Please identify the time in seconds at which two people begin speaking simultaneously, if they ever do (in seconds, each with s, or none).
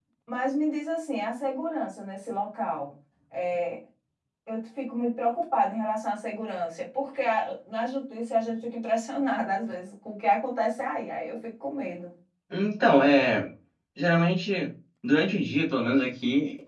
none